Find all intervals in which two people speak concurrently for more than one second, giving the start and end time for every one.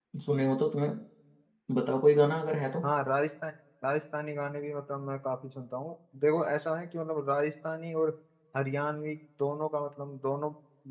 none

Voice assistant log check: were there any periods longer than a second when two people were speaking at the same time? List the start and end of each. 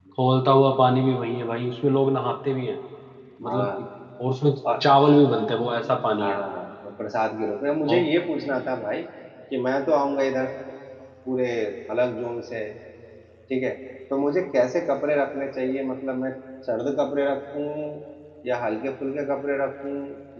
none

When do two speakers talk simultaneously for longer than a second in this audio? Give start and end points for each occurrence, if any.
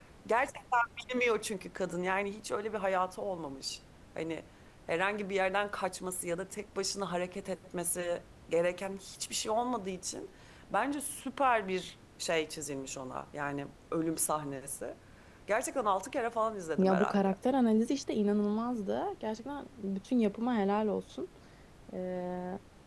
none

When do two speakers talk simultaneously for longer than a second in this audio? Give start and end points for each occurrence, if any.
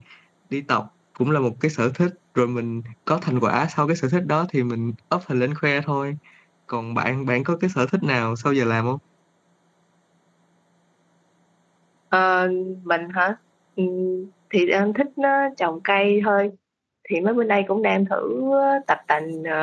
none

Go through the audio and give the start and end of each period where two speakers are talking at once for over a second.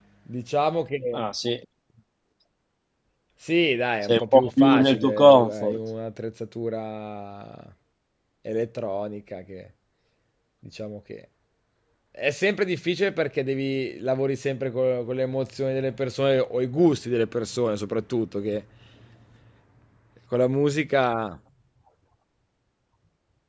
4.0-5.8

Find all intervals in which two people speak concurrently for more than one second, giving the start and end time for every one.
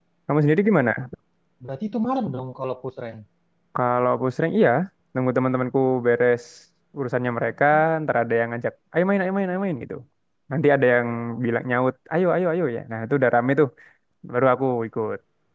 none

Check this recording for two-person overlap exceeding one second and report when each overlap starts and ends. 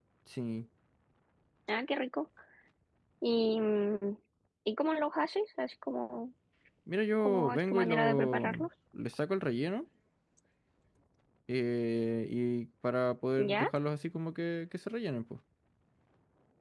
7.2-8.7

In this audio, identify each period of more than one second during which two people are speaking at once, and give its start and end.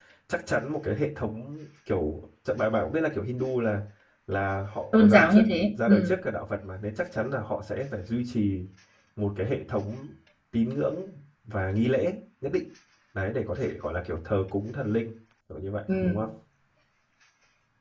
4.9-6.2

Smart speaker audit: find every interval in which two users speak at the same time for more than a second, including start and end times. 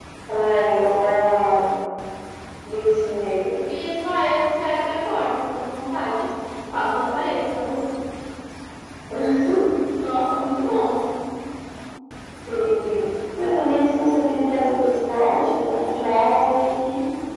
none

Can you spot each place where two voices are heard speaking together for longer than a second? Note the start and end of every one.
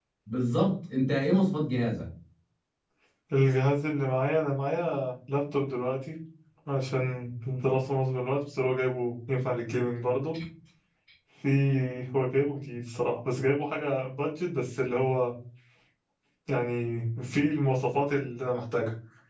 none

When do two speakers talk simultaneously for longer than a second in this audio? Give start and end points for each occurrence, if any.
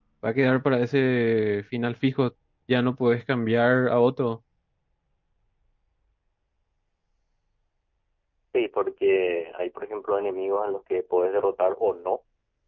none

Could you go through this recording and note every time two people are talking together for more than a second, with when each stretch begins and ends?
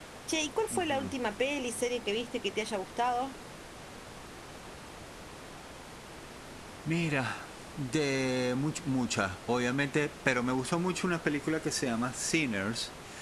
none

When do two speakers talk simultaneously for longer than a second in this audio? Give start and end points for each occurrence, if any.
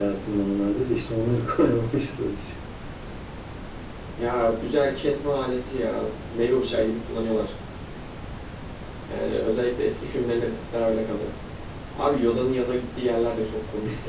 none

